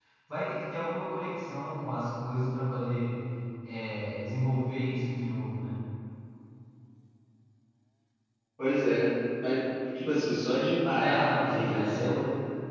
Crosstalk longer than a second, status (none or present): present